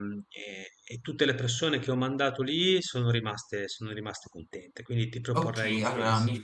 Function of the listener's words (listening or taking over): taking over